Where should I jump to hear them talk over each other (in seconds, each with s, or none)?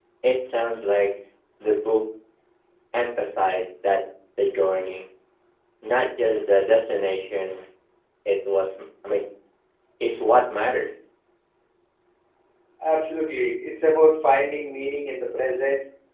none